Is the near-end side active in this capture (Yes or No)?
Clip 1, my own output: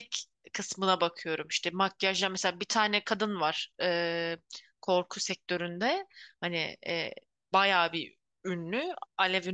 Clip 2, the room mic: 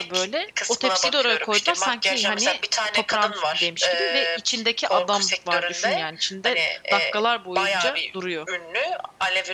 Yes